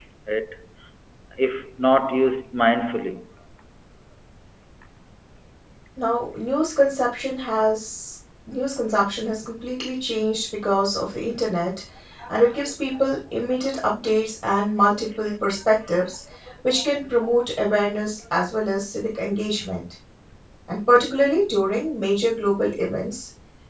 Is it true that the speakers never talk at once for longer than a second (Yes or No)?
Yes